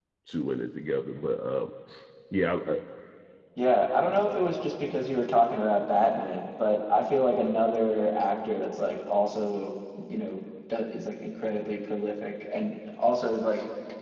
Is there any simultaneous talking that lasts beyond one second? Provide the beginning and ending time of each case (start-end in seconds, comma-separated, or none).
none